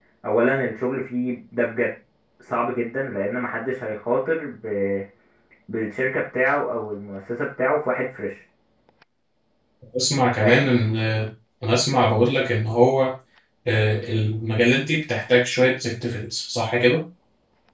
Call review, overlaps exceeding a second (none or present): none